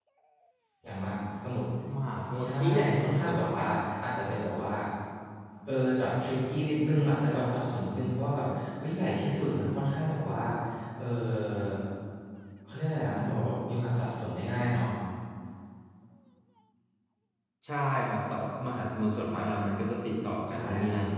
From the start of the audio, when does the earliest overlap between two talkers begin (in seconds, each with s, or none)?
2.4 s